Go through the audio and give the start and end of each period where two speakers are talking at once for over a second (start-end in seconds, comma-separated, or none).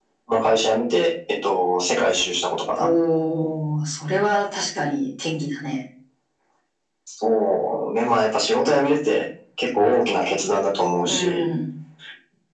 none